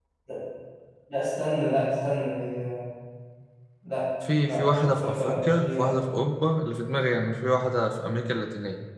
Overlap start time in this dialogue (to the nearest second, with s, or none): 4 s